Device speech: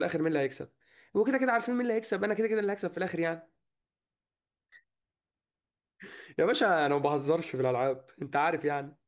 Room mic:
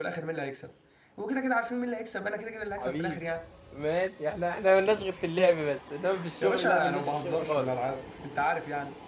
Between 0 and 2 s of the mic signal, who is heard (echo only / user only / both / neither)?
echo only